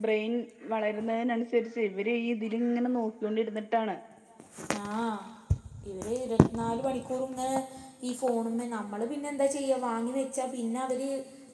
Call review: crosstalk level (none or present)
none